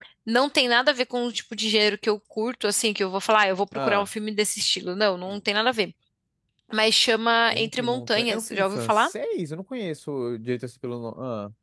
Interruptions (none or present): present